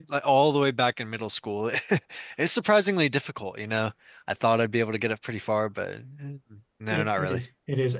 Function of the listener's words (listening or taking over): taking over